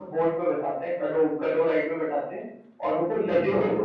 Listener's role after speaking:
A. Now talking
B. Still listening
B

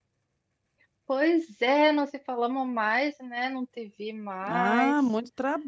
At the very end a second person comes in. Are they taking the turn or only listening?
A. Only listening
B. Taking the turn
B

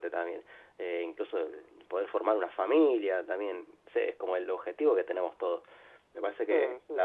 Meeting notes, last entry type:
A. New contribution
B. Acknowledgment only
B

